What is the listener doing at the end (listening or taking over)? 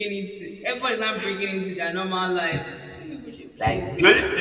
taking over